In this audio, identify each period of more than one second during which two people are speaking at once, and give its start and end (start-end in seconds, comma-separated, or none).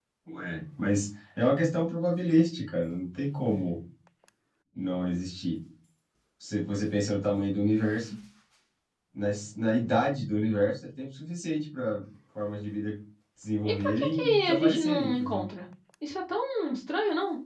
13.6-15.5